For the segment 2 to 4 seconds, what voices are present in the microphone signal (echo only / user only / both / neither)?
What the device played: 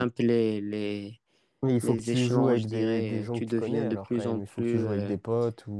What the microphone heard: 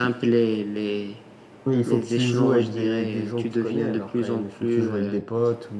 echo only